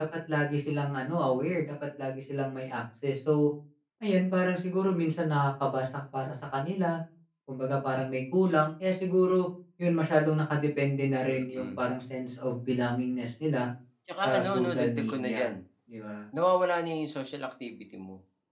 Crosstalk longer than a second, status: present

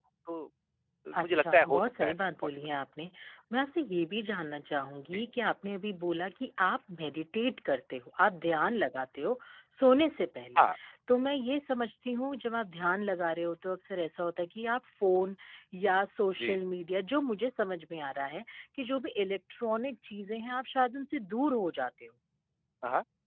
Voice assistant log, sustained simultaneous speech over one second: present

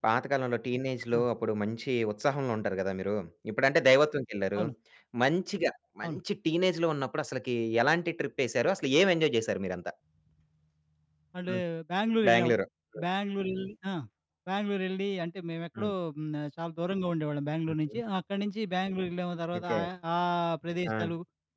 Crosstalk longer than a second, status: none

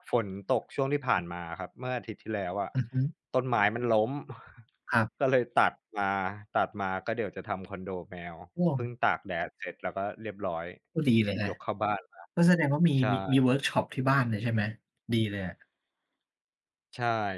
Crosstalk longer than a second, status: none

